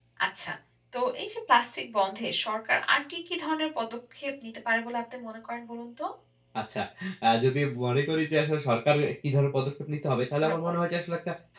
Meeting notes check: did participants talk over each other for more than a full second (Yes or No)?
No